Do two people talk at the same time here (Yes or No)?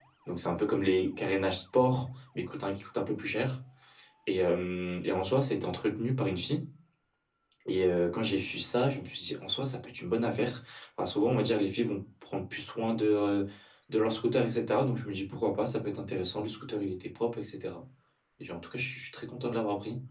No